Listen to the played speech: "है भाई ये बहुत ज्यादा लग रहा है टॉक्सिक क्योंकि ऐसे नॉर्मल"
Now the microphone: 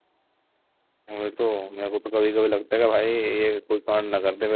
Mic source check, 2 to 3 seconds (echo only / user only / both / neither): user only